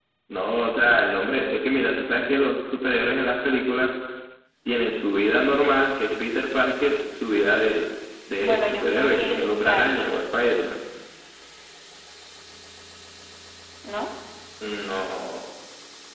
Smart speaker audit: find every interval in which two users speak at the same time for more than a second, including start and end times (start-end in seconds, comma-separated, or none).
8.4-10.2